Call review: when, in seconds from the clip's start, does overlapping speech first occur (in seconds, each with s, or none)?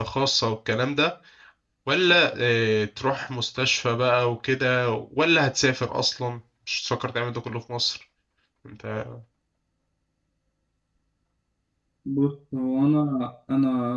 none